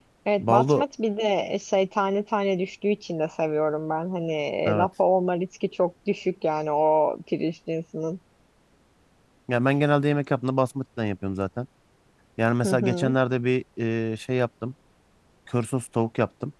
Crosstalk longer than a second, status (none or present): none